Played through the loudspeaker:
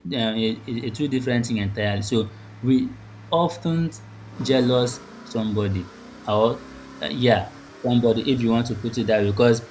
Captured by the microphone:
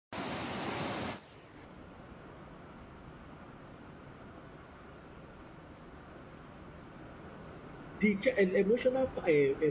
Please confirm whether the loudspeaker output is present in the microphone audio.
No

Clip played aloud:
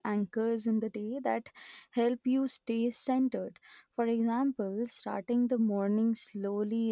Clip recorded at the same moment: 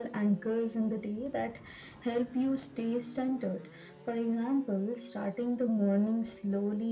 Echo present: Yes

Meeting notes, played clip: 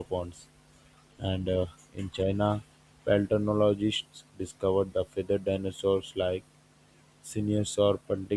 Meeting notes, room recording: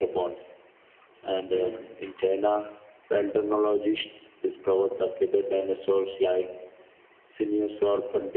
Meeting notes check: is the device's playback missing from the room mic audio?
No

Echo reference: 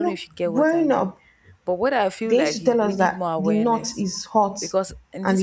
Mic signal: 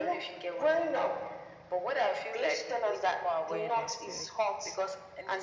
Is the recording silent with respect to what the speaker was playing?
No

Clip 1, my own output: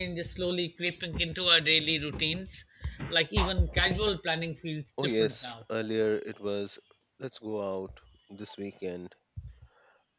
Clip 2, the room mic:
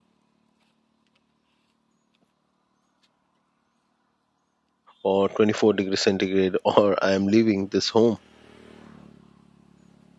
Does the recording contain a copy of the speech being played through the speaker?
No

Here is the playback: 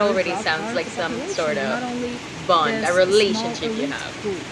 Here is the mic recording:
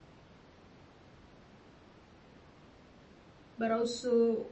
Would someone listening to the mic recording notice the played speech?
No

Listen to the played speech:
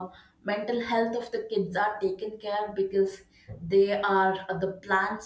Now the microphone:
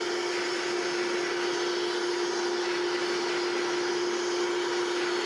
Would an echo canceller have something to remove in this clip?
No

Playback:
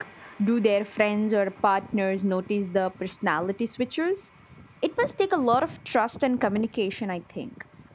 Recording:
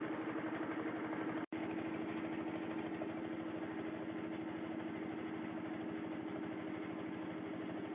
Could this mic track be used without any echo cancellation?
Yes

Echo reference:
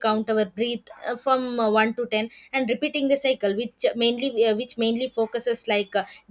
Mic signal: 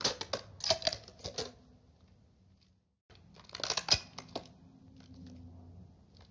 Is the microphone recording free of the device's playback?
Yes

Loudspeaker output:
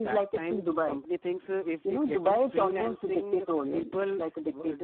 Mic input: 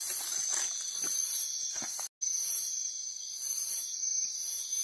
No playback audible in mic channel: Yes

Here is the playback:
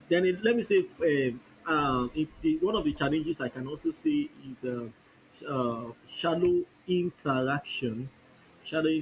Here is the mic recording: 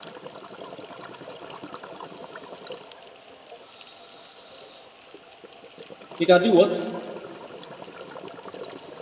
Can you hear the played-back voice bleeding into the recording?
No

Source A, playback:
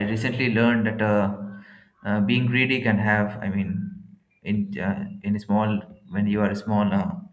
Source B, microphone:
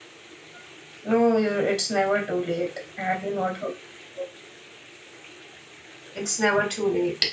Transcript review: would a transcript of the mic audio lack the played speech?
Yes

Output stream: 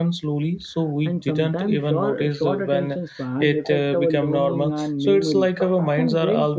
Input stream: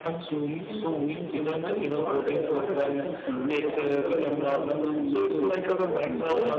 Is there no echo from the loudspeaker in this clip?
No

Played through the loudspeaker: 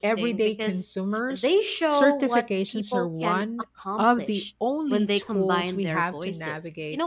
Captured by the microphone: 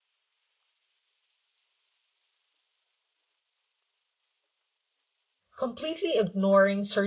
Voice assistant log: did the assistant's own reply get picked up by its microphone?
No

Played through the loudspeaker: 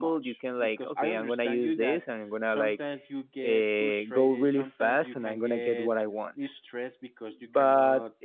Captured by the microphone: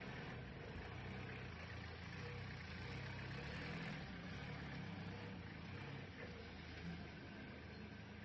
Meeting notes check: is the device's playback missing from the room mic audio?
Yes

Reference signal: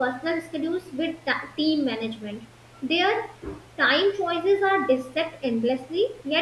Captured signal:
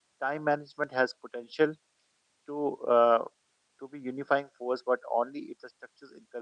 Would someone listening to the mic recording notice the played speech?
No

